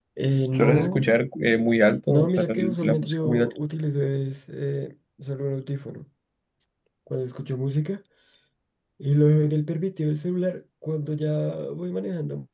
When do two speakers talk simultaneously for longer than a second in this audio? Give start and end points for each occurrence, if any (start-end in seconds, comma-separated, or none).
2.1-3.5